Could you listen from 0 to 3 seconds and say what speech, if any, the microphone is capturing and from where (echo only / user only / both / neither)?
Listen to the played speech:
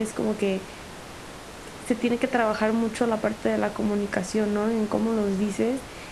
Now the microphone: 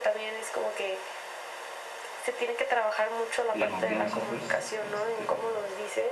echo only